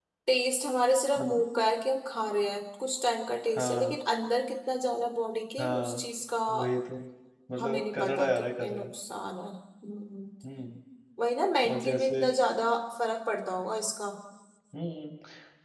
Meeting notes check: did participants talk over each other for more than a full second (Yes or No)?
Yes